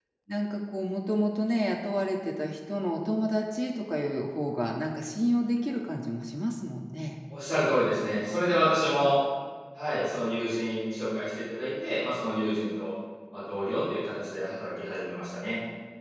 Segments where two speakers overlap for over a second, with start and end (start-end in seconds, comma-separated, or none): none